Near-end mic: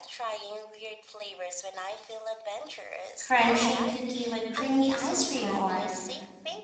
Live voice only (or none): crunchy cookie with creamy ice cream or